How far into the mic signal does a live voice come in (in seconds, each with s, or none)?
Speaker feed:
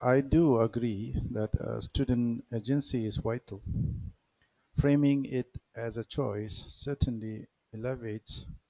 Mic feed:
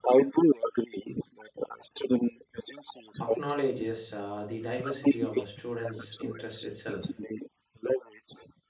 3.2 s